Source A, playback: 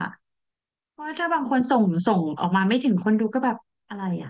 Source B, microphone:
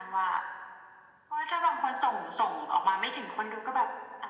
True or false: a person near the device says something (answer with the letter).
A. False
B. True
A